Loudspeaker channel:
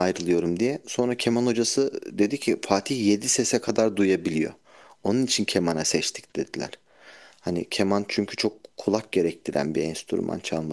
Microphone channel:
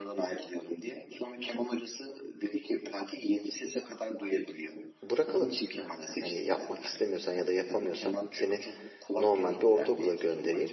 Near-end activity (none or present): present